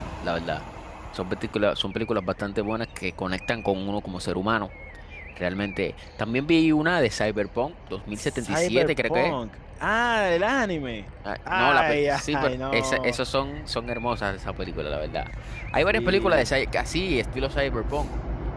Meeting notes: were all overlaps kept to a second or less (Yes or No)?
No